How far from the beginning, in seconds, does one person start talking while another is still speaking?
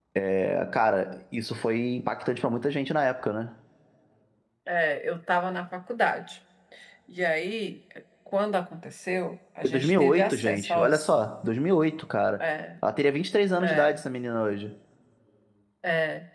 9.6 s

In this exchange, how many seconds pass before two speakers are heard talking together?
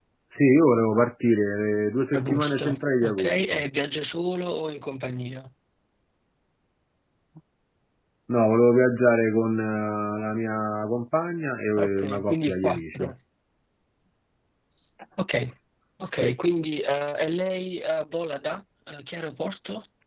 2.2 s

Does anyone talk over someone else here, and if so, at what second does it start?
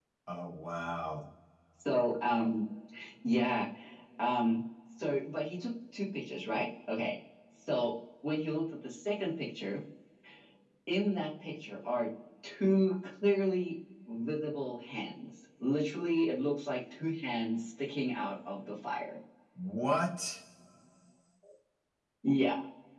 none

